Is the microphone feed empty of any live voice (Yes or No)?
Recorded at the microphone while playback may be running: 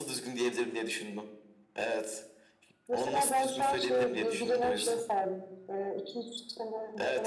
Yes